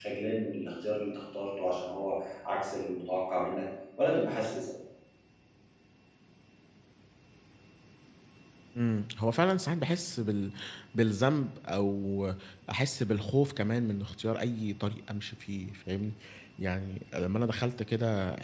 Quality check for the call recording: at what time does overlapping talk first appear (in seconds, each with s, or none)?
none